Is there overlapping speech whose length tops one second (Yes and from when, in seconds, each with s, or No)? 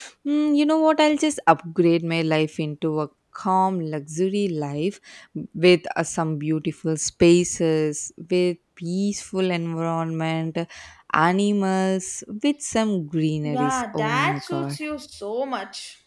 Yes, from 13.4 s